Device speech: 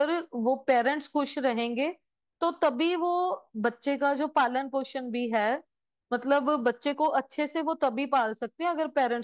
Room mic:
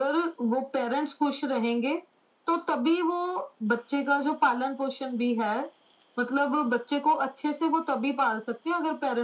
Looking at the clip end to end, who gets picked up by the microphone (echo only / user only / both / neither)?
echo only